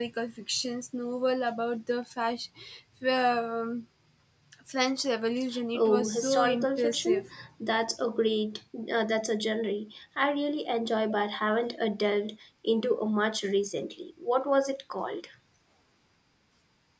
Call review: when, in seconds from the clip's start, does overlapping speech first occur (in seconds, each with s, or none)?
5.8 s